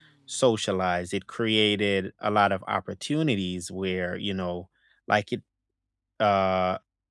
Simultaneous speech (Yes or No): No